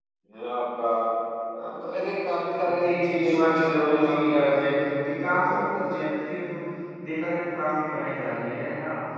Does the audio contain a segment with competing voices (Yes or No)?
Yes